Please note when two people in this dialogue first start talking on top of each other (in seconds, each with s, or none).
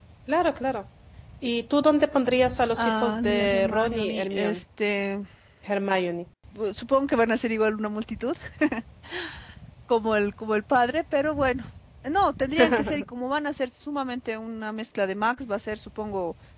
2.8 s